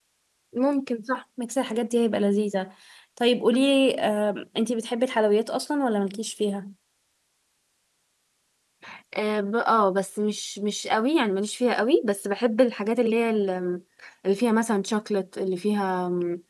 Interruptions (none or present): none